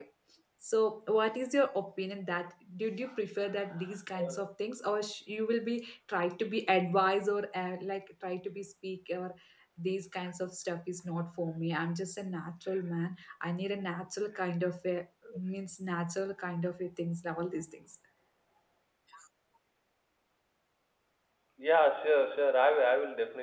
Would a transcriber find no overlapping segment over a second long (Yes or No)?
Yes